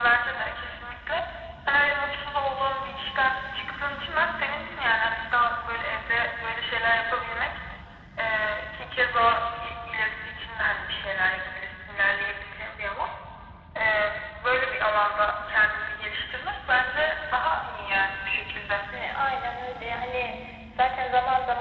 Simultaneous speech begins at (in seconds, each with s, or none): none